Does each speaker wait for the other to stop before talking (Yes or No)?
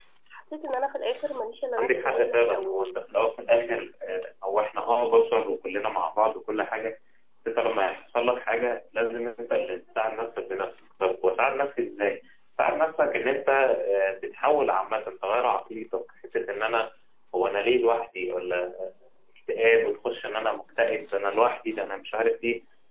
No